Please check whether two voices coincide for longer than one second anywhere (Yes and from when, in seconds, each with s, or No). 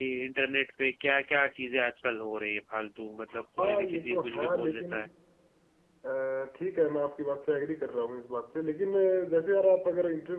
Yes, from 3.6 s